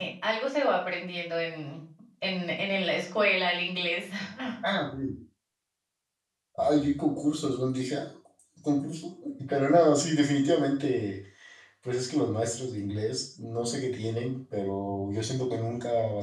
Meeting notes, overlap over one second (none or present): none